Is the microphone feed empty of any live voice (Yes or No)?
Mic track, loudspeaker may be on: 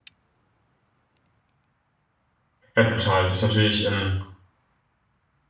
No